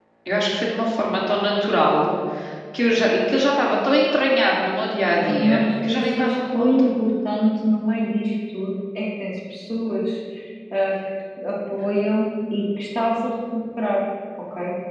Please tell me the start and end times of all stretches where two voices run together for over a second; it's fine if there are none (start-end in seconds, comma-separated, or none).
5.1-6.9